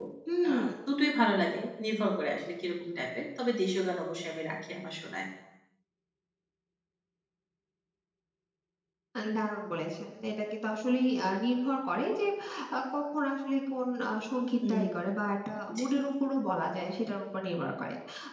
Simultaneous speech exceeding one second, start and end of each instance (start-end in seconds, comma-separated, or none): none